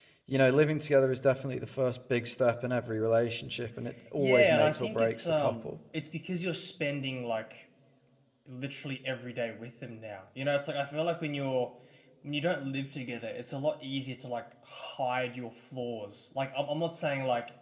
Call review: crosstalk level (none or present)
present